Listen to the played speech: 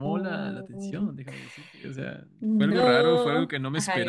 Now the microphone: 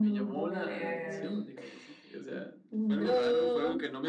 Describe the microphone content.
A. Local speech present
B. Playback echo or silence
A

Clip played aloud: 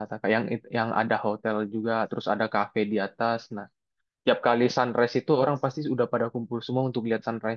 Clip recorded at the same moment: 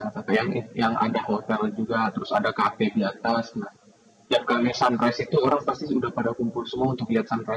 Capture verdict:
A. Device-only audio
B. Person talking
A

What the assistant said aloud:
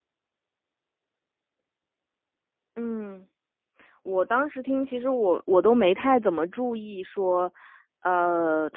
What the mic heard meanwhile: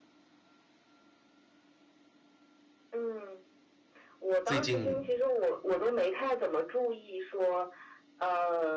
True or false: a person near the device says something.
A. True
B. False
A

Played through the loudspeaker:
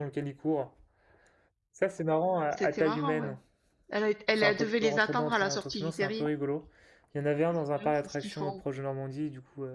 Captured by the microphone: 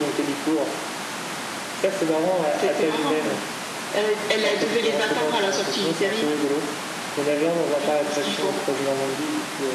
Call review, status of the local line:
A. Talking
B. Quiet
B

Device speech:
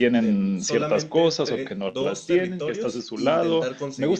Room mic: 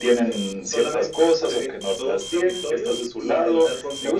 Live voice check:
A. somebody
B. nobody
B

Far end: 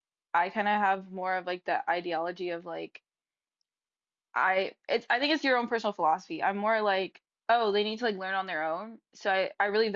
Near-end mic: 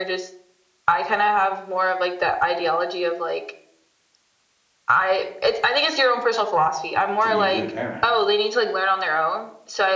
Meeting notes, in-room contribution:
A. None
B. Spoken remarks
B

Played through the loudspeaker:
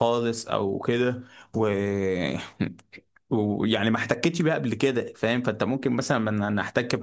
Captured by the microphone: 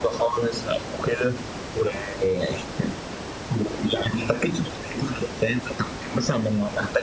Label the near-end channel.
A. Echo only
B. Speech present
A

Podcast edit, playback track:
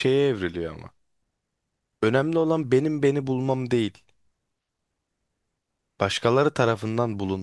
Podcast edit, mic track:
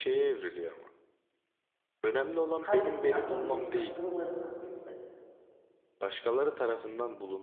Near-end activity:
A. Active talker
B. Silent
A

